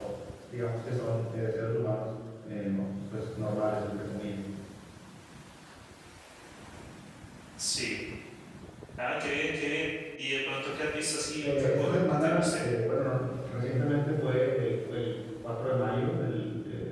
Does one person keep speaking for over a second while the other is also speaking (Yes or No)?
Yes